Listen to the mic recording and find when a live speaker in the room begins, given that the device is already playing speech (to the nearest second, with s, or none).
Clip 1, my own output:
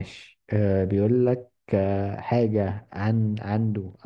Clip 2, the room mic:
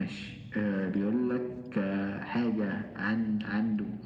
none